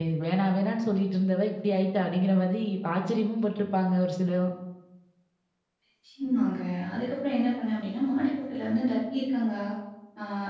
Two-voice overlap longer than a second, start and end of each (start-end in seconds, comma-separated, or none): none